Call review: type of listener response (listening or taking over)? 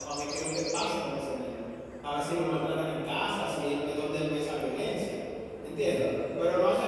listening